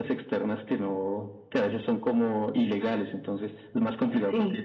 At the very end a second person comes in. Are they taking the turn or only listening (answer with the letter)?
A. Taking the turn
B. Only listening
B